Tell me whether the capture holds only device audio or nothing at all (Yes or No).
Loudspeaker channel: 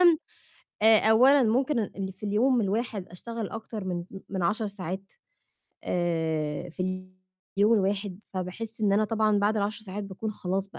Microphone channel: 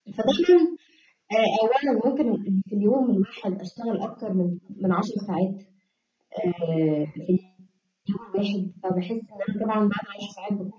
Yes